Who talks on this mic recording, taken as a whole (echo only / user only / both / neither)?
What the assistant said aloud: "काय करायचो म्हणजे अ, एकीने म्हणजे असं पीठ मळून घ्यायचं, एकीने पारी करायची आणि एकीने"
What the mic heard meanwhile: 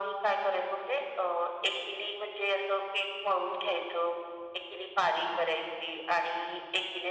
echo only